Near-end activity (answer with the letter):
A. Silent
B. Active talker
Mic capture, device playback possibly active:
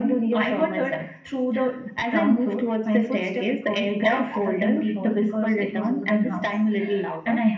B